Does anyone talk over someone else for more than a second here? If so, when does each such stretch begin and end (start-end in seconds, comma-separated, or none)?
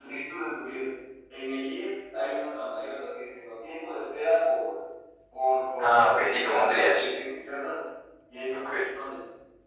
5.8-7.1